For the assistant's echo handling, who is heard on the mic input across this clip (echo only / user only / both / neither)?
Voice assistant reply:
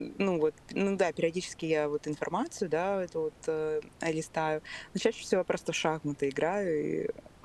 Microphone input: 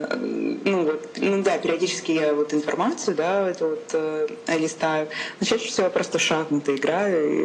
echo only